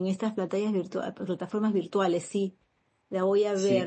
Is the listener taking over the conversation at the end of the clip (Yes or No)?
Yes